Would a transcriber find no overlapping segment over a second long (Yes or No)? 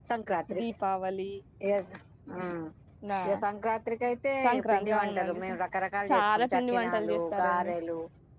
No